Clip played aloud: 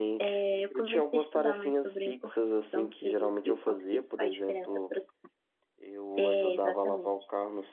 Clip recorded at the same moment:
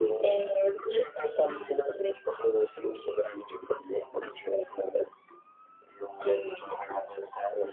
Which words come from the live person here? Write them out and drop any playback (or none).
none